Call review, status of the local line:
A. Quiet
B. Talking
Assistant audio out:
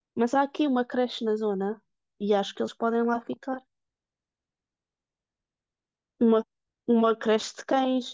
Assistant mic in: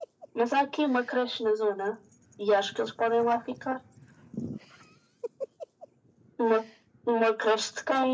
A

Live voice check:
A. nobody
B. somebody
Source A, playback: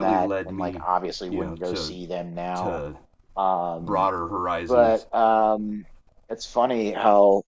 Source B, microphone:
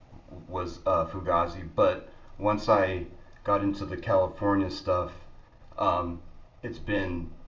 B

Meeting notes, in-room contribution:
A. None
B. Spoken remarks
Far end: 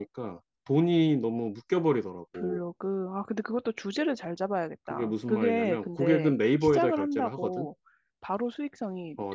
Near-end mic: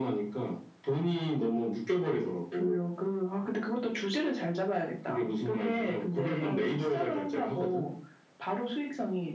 B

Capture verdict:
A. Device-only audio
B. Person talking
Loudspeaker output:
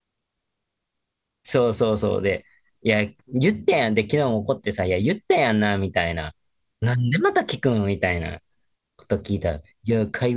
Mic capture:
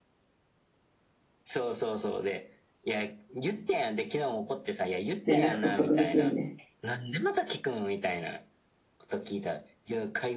B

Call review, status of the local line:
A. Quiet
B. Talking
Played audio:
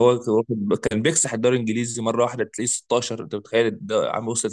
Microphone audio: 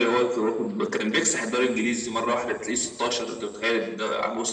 A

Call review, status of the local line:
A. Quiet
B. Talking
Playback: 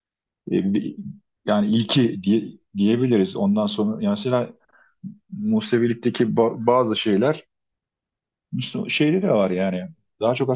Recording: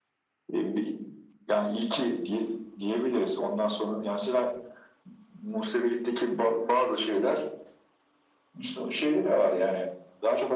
A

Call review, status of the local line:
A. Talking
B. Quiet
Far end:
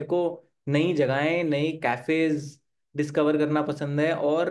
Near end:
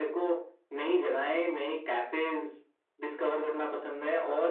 B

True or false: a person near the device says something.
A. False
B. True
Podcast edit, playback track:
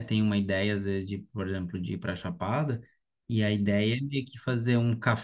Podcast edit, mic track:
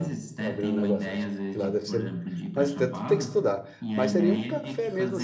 B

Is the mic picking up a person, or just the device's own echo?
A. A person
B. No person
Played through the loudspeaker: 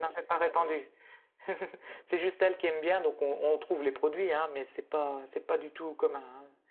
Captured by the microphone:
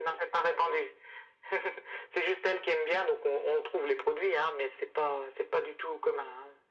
B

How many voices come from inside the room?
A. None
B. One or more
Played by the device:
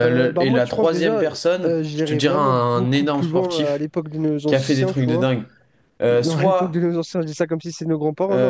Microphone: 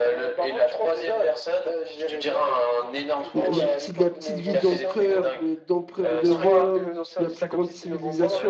B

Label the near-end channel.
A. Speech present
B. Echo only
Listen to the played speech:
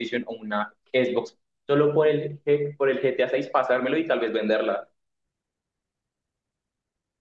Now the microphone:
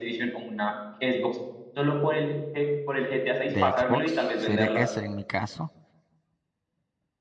A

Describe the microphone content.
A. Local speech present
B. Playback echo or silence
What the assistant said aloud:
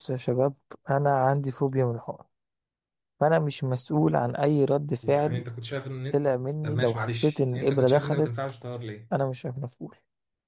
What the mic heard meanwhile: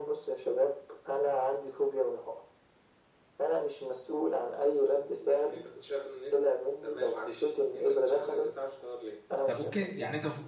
A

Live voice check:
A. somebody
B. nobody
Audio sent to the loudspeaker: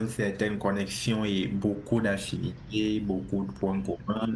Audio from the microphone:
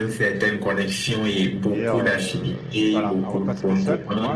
A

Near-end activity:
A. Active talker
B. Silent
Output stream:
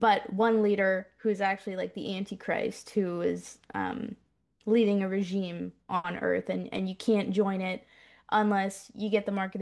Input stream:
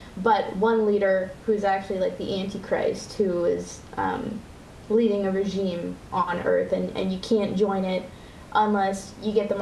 B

